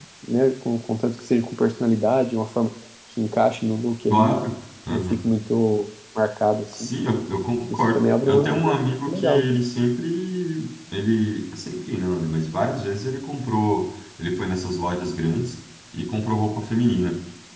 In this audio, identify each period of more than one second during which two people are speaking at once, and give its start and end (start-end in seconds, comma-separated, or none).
7.7-9.5